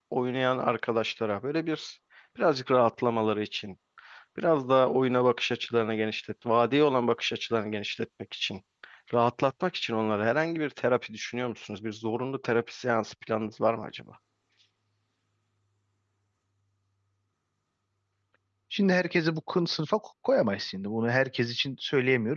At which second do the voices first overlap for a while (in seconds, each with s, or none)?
none